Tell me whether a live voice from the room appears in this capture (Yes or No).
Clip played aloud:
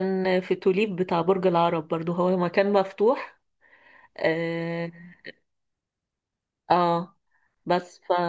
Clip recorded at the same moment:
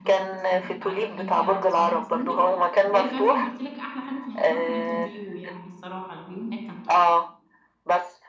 Yes